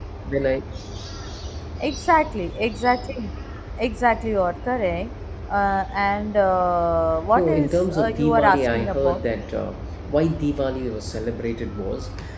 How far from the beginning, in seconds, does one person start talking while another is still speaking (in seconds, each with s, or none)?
7.3 s